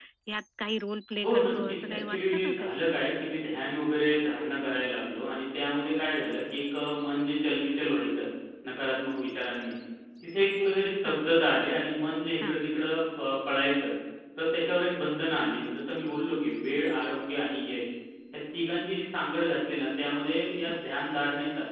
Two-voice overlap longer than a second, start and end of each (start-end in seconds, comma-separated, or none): 1.2-2.8